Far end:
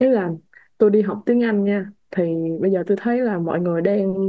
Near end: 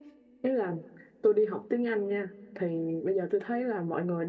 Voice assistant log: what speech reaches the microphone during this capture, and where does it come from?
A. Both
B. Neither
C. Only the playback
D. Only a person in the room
C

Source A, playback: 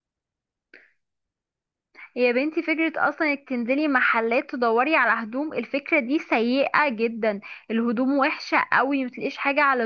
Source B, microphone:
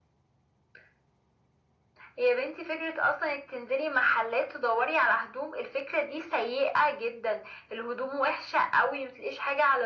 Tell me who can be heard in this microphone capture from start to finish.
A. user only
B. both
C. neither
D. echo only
D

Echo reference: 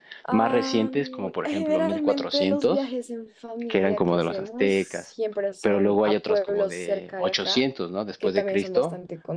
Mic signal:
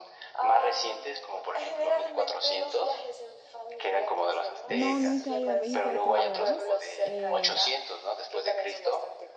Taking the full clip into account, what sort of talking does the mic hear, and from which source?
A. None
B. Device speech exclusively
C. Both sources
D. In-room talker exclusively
C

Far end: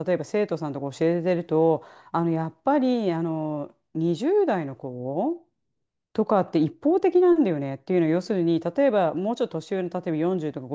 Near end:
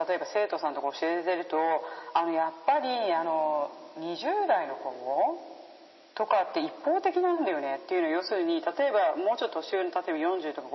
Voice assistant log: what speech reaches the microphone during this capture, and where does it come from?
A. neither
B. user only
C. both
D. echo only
D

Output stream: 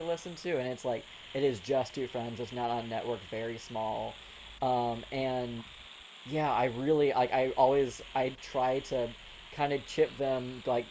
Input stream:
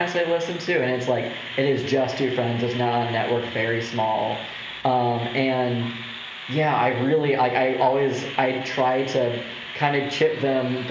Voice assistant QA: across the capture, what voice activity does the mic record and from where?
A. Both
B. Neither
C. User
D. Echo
D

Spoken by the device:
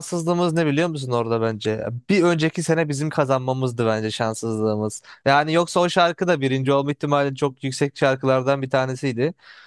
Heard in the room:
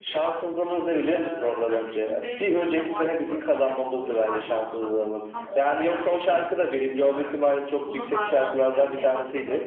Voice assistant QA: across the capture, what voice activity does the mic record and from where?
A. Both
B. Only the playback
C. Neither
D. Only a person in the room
A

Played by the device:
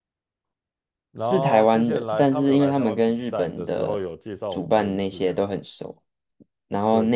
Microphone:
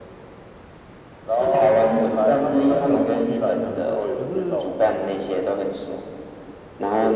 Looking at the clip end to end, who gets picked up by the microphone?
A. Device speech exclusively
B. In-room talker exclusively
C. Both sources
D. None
C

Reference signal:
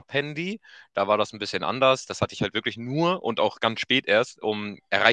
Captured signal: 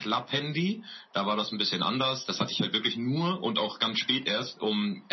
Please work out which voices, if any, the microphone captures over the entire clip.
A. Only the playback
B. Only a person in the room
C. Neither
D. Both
A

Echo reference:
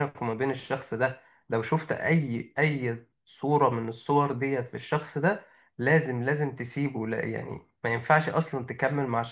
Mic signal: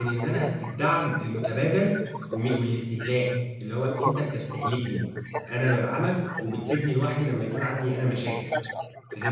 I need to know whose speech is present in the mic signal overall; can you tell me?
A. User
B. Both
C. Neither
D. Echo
B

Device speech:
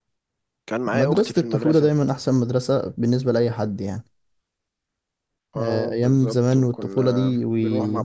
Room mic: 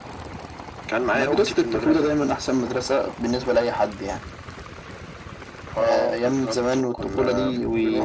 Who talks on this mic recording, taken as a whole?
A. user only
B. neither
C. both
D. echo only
D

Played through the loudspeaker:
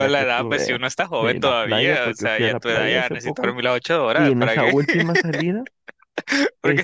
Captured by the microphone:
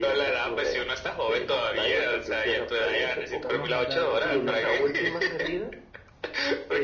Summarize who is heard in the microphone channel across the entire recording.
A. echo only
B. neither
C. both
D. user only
C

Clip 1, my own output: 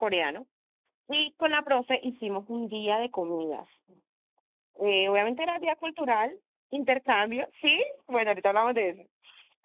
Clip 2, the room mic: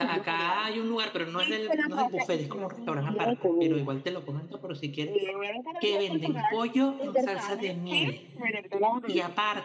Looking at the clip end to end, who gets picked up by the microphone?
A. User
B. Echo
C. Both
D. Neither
C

